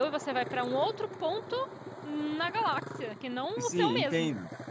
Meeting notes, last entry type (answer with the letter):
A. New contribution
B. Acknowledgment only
A